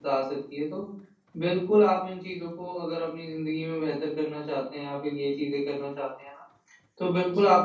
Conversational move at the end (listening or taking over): listening